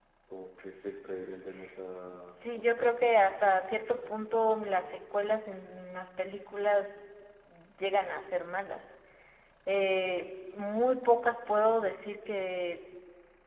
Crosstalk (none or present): present